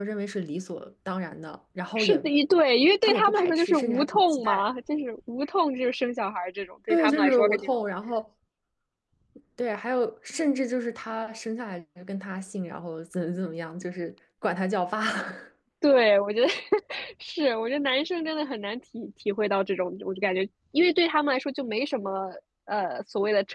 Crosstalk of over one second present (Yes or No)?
Yes